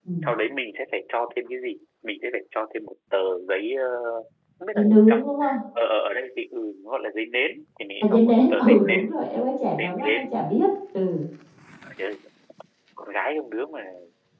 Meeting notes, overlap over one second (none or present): present